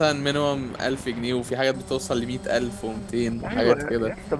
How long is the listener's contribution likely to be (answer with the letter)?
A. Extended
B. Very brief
A